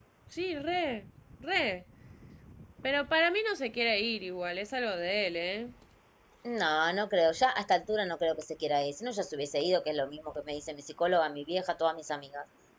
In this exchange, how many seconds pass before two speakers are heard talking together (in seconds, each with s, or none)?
none